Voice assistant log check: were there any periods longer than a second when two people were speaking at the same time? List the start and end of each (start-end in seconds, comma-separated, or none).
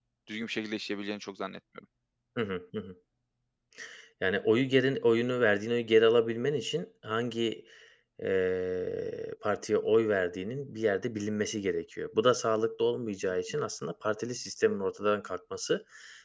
none